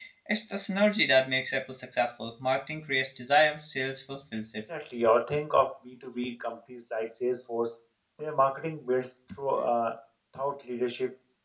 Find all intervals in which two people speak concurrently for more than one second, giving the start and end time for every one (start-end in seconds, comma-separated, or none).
none